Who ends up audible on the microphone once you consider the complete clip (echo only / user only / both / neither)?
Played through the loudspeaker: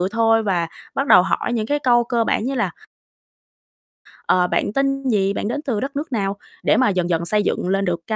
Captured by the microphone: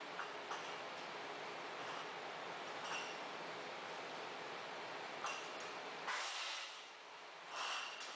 neither